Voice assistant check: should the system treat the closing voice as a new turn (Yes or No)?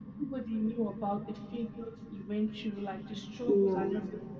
No